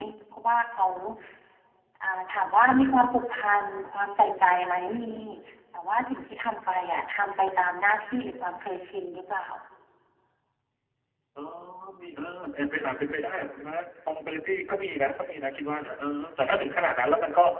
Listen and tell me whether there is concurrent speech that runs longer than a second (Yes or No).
No